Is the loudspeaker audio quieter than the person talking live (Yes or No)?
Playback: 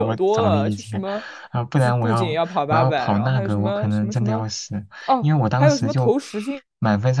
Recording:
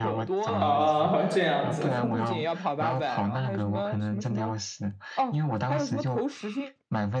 Yes